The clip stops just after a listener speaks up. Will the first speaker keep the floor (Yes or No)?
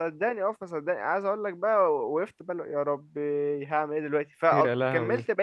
Yes